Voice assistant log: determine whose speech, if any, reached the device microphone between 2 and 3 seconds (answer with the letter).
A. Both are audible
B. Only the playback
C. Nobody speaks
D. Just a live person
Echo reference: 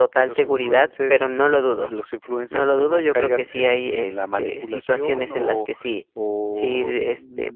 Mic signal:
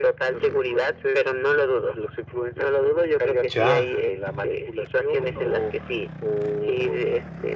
B